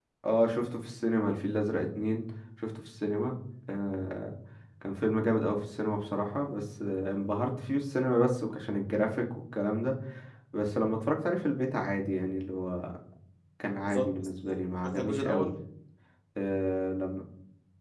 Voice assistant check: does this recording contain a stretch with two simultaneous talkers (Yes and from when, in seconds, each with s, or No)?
Yes, from 13.8 s